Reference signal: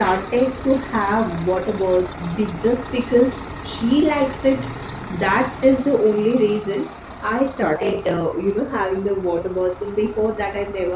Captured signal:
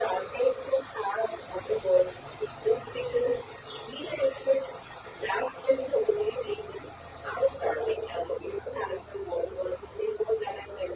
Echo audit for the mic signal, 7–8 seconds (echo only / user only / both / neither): echo only